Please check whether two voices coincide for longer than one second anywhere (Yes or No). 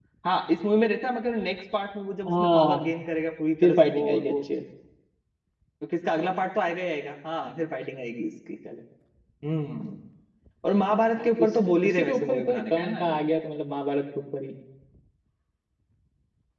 Yes